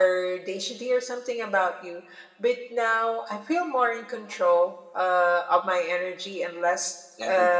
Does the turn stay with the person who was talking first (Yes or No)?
Yes